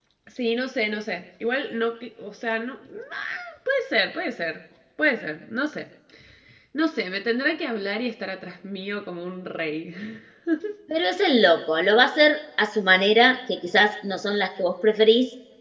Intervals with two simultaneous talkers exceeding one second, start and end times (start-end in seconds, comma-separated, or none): none